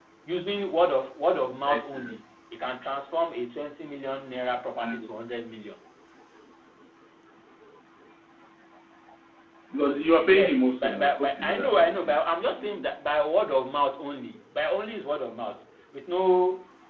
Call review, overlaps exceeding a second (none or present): present